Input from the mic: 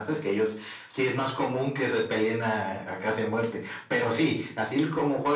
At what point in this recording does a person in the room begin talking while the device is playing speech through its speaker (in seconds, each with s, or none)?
none